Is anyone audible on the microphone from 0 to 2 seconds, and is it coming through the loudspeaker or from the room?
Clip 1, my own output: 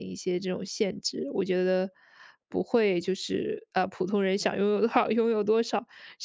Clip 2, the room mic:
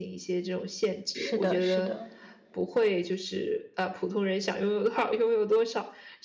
both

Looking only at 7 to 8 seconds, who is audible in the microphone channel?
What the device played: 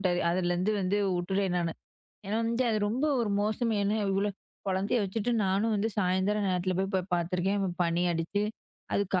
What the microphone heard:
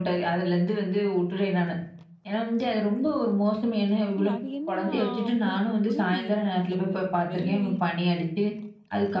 both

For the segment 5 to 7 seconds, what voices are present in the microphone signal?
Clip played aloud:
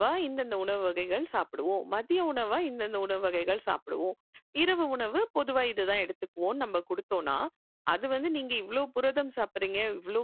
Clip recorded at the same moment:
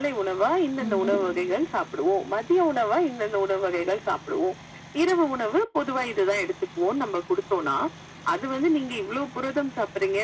echo only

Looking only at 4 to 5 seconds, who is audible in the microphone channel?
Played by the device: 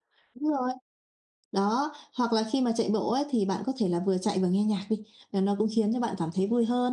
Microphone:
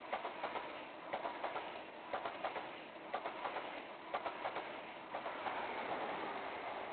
neither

